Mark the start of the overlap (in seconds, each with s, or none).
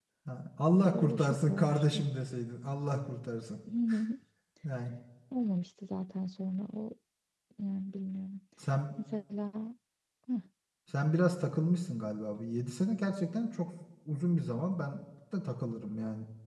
0.7 s